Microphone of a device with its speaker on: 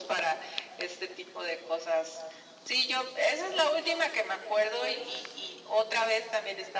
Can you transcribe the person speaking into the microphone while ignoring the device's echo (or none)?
none